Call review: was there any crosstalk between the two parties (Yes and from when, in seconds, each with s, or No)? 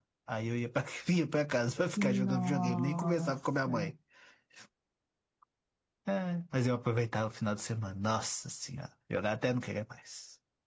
Yes, from 2.0 s